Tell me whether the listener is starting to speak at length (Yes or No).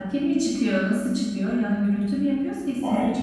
Yes